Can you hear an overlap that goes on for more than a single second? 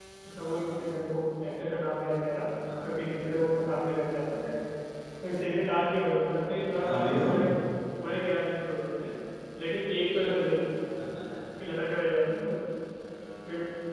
No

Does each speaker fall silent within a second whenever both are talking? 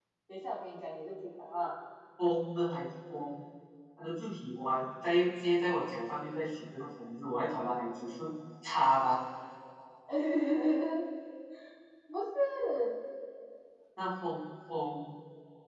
Yes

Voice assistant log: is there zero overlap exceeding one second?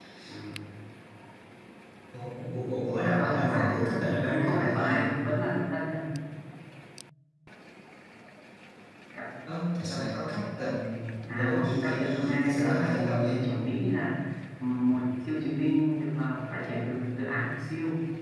No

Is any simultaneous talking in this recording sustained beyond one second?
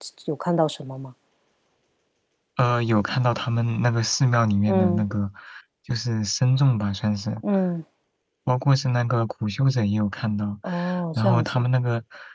No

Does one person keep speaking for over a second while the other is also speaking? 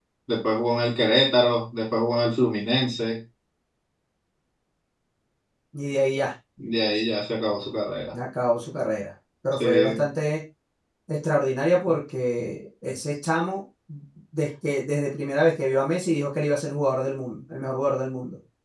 No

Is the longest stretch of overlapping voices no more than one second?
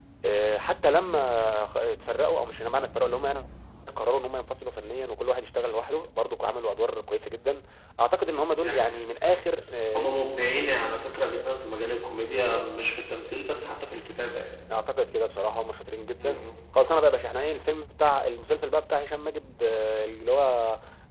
Yes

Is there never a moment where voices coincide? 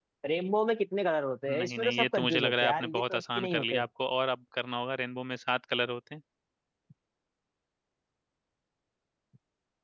No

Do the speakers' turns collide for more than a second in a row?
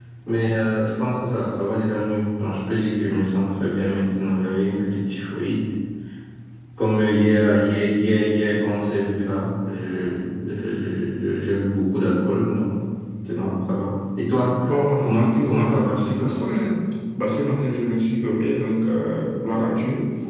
Yes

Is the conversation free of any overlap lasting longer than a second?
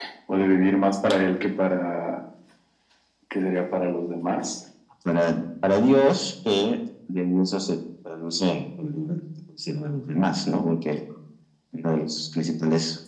Yes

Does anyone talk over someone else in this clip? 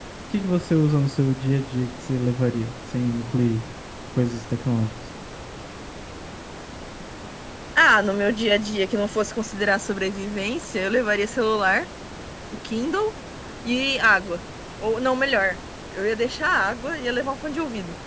No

